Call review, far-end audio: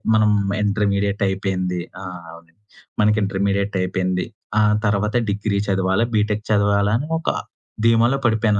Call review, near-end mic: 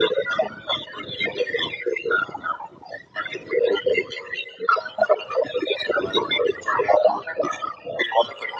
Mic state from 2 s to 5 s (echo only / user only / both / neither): echo only